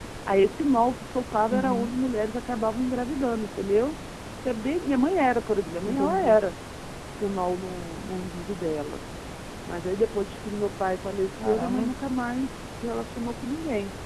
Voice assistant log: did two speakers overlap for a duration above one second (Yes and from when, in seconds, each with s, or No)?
No